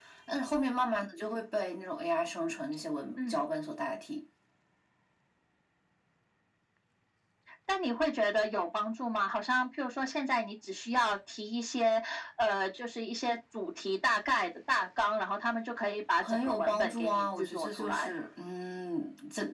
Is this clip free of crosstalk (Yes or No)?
No